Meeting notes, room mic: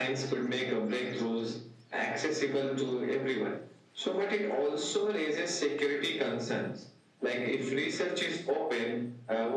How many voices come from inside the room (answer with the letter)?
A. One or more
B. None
B